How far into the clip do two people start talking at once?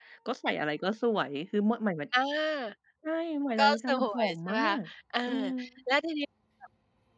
4 s

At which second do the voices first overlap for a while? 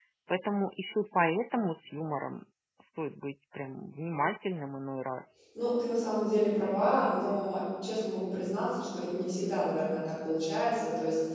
none

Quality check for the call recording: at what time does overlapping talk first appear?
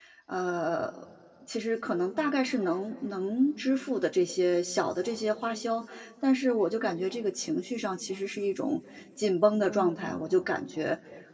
none

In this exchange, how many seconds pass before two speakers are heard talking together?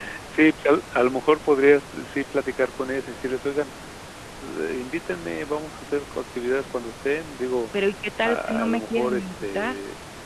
8 s

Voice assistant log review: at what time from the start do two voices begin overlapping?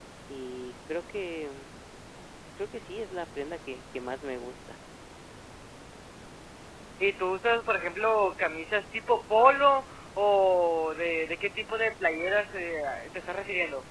none

